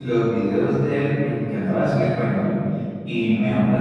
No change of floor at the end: Yes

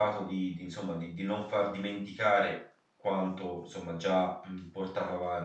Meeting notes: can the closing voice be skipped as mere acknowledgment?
Yes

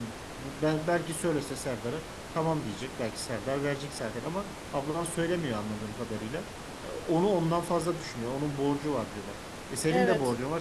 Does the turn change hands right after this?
No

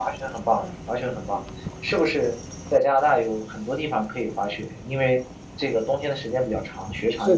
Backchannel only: No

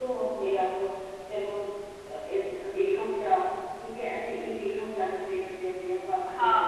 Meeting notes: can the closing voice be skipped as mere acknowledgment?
No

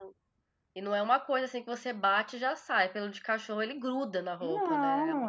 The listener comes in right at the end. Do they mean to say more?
Yes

